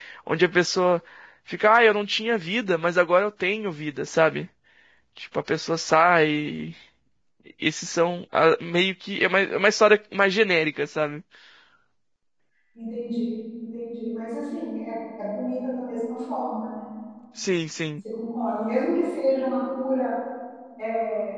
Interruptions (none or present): none